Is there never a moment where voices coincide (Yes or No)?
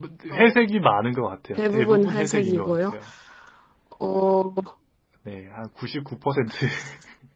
No